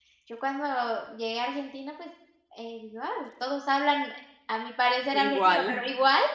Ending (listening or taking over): listening